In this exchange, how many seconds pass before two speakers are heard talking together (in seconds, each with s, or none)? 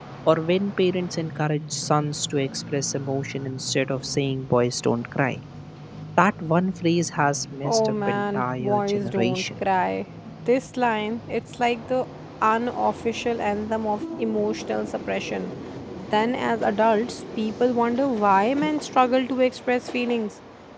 7.6 s